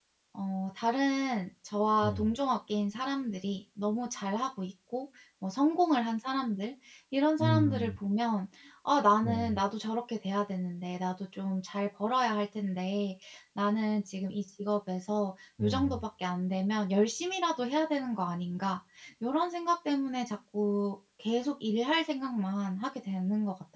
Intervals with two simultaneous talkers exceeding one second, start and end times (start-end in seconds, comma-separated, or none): none